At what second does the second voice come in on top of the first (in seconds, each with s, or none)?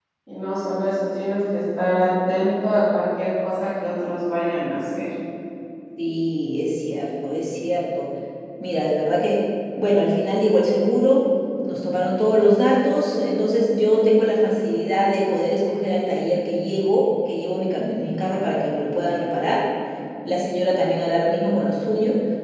none